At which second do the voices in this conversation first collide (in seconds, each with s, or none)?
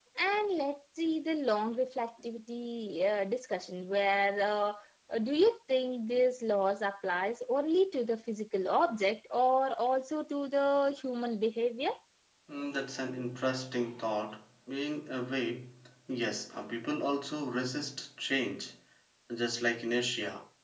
none